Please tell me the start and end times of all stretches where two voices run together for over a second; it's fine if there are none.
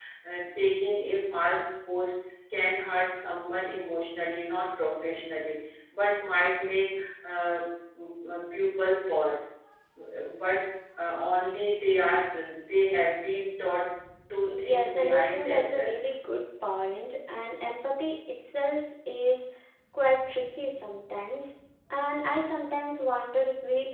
14.5-15.9

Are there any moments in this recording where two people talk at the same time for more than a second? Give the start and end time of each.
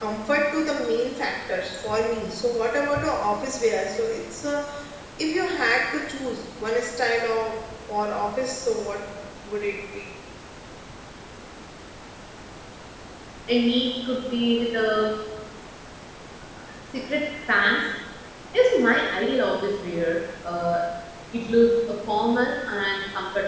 none

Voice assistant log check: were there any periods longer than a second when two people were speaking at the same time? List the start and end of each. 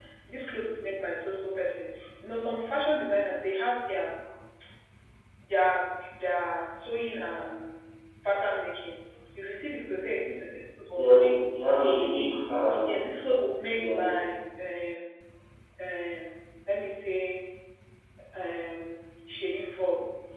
none

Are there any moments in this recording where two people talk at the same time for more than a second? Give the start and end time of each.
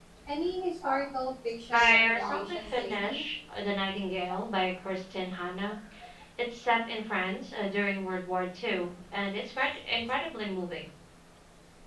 1.7-3.2

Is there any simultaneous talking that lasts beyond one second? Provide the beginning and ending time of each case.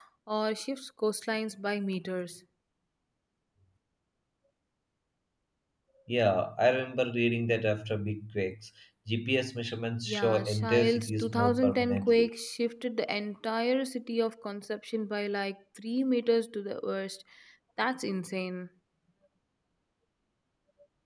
10.1-12.3

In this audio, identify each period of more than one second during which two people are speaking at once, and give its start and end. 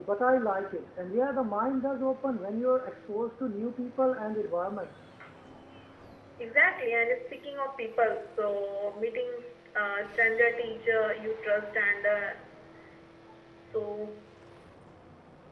none

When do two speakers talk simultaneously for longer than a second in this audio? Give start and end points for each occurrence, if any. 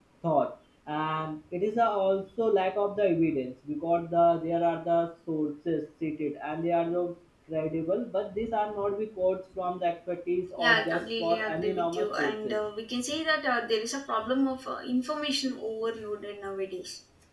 10.6-12.6

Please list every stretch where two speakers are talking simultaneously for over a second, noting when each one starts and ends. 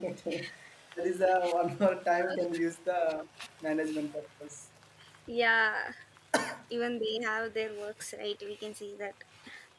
none

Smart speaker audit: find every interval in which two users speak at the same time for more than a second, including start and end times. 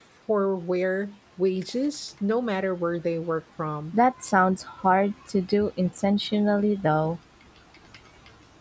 none

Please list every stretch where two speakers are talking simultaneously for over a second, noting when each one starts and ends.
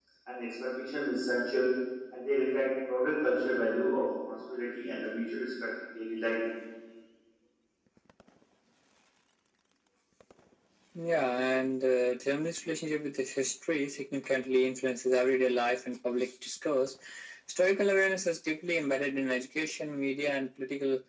none

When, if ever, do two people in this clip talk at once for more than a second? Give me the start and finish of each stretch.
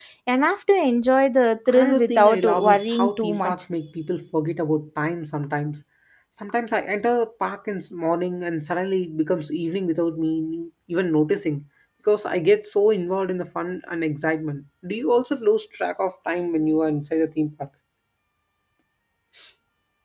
1.7-3.5

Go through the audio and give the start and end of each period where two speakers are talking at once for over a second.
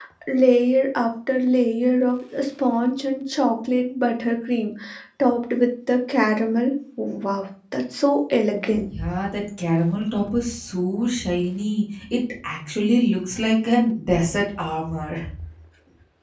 none

